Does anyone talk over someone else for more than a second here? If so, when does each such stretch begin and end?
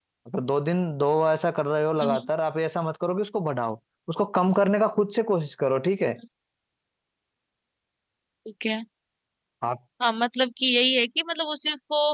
none

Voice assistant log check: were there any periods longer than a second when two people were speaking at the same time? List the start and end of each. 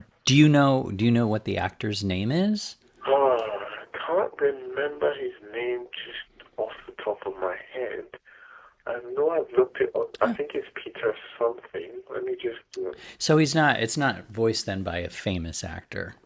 none

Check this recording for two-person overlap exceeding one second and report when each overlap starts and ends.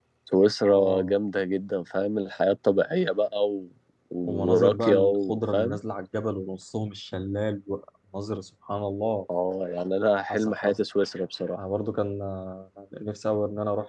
4.2-5.8

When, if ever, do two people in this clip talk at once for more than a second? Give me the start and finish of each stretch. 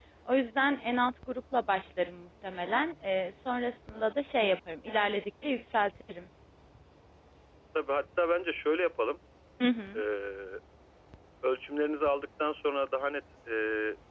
none

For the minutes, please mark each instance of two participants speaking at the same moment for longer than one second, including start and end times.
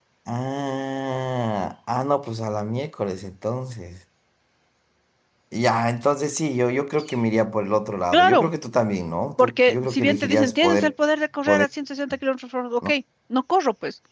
9.4-10.9

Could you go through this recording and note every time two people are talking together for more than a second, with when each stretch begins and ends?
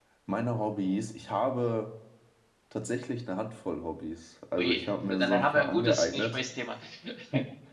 4.6-6.4

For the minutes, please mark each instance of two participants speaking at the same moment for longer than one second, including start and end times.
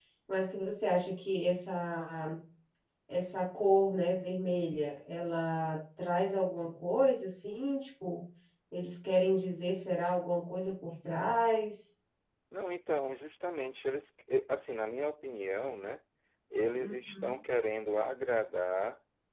none

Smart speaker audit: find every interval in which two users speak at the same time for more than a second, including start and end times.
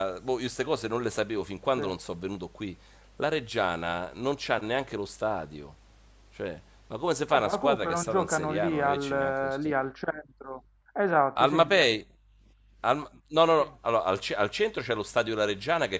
7.3-9.6

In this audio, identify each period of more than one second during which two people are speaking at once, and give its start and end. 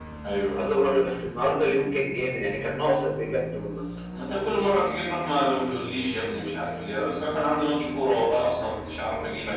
none

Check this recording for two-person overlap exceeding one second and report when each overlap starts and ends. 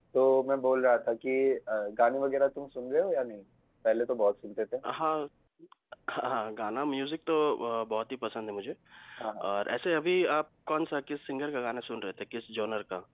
none

